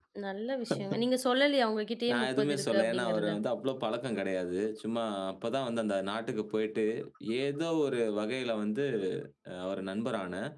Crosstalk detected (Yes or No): Yes